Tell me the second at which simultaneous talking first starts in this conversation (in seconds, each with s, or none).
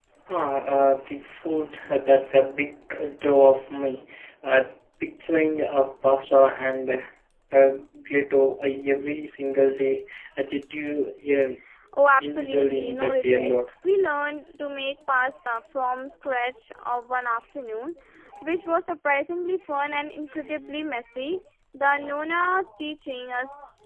12.2 s